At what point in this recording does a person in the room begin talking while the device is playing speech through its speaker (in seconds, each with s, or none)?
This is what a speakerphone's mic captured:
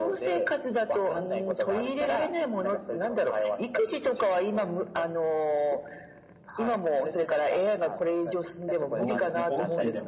8.9 s